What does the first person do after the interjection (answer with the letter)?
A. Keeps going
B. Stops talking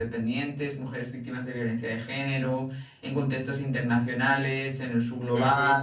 A